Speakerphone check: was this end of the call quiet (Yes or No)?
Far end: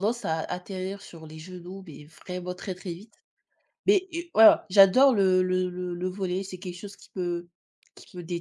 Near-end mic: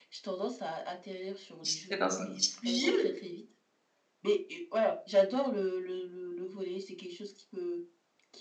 No